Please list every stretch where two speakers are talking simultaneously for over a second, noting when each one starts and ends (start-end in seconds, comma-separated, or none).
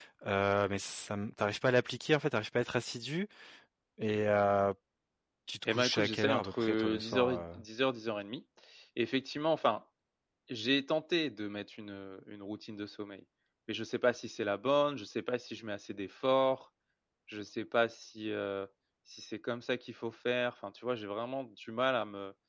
5.7-7.6